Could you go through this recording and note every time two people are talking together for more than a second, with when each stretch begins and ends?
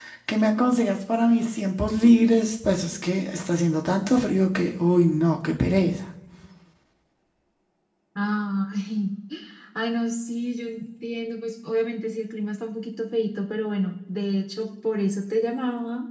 none

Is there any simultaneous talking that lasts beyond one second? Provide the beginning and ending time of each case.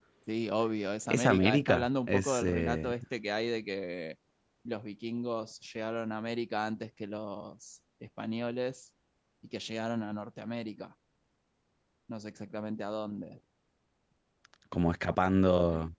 1.1-2.9

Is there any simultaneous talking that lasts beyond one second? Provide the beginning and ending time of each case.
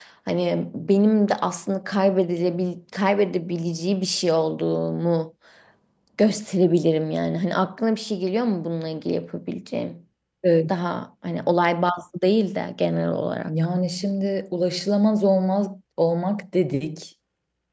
none

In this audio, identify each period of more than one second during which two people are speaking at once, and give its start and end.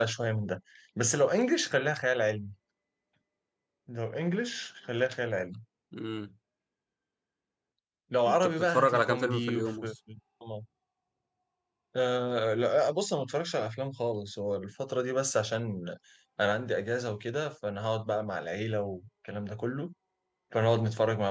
8.3-9.9

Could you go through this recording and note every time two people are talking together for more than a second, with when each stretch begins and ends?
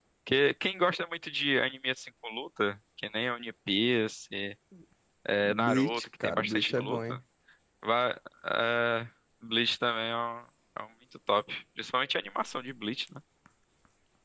5.4-7.2

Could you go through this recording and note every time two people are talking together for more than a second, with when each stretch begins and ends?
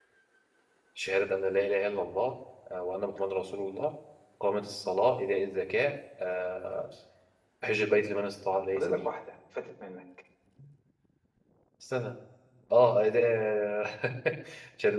none

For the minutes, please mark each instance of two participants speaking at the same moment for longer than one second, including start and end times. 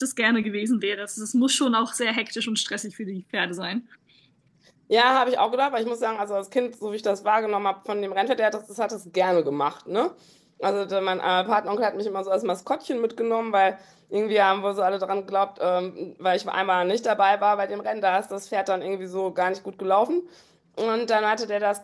none

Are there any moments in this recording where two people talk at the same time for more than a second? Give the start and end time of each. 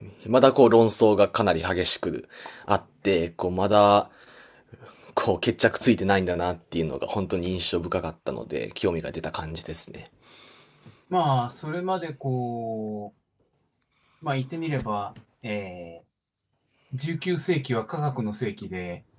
none

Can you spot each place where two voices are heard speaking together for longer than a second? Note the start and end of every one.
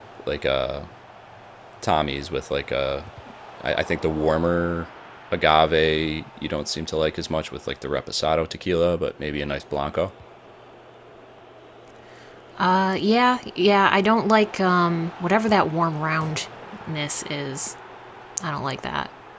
none

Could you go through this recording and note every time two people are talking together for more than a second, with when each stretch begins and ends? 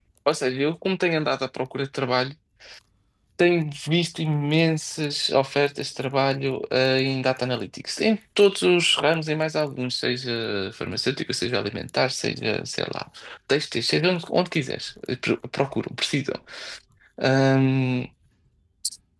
none

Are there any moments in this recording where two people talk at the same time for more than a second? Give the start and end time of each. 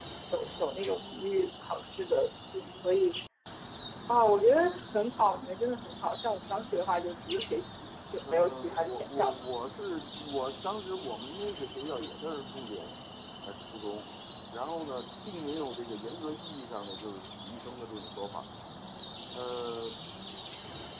8.2-9.5

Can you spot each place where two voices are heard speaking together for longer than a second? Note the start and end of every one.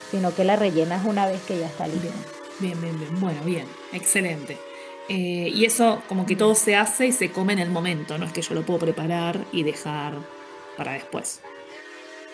none

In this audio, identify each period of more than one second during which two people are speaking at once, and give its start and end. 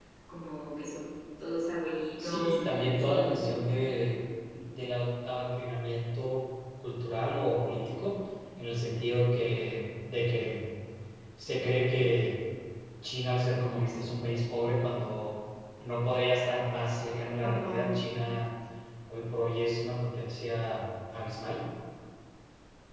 2.2-3.6

